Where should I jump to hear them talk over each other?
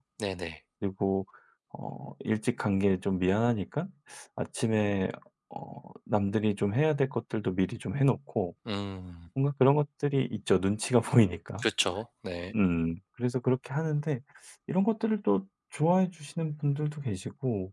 none

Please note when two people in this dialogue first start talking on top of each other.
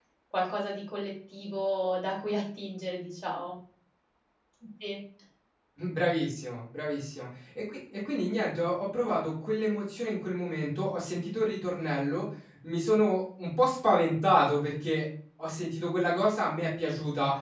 none

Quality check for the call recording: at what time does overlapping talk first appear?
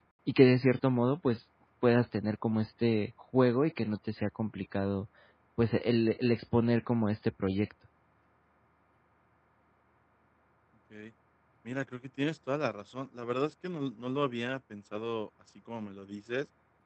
none

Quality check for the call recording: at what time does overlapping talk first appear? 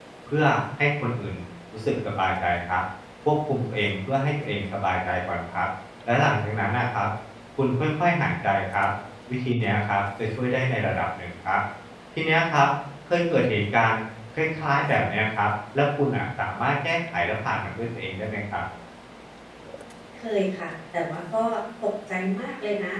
none

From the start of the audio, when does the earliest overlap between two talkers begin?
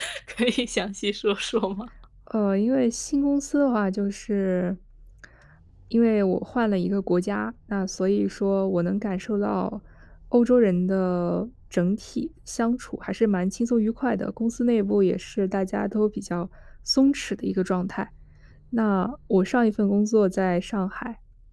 none

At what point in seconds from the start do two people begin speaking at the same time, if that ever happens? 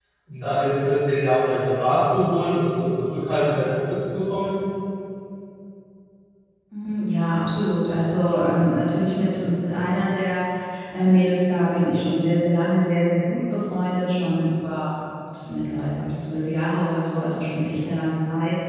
none

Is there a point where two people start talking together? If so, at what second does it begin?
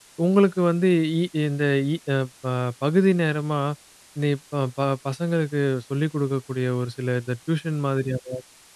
none

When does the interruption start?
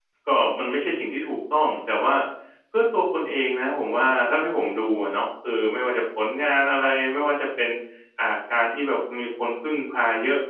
none

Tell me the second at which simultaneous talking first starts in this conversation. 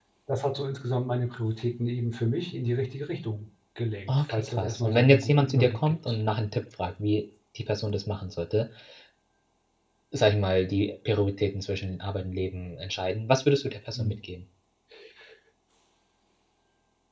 4.1 s

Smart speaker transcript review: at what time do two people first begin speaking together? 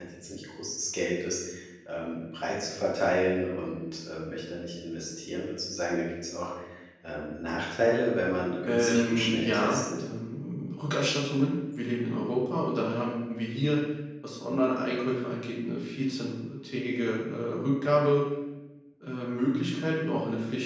8.7 s

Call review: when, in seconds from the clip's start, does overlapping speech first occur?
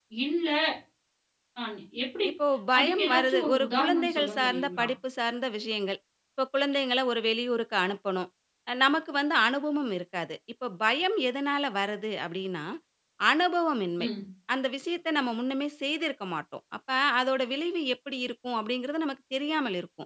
2.8 s

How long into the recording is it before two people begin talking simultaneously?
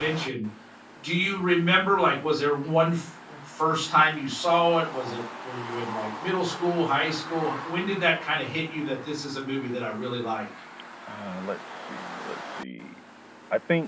none

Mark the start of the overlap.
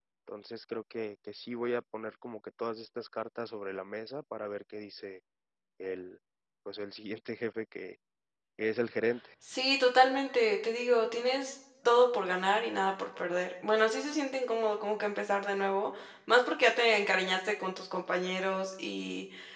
none

